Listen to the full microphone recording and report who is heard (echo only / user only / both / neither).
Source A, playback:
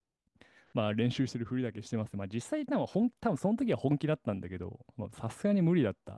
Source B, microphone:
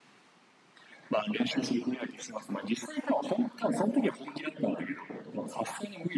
echo only